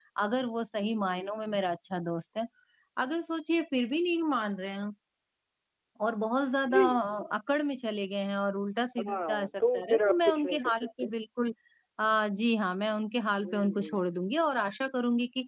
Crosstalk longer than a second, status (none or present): present